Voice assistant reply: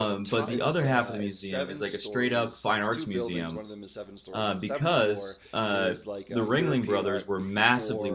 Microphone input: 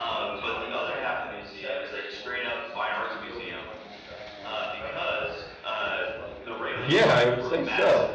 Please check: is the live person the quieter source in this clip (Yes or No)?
No